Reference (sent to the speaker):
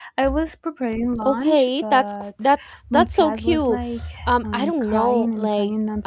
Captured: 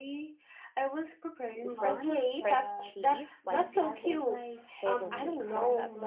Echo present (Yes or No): Yes